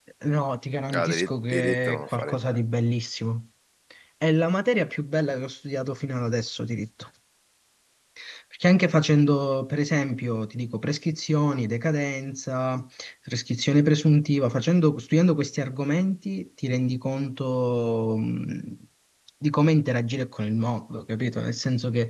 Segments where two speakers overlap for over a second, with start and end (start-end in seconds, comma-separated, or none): 0.9-2.6